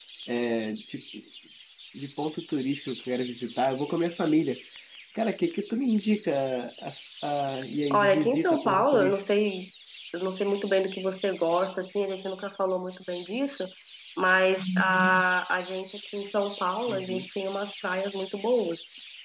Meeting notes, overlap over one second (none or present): present